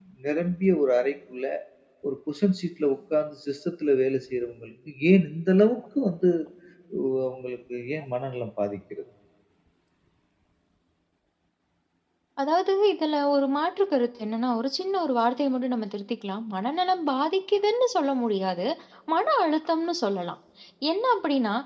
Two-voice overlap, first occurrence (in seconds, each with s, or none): none